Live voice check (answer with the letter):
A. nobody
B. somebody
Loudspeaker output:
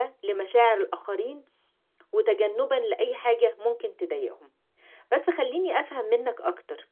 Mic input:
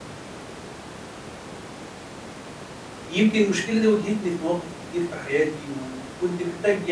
B